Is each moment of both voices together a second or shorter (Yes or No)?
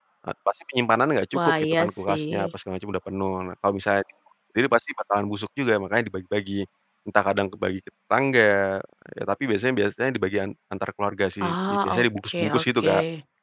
No